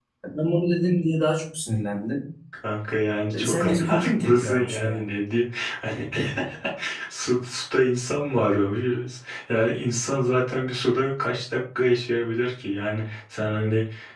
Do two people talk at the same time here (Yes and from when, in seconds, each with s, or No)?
Yes, from 3.3 s